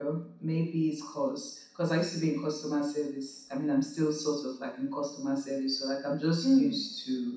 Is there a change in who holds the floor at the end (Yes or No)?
No